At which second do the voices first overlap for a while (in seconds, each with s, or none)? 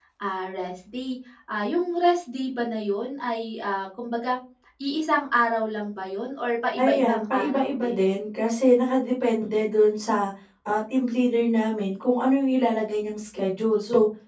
6.8 s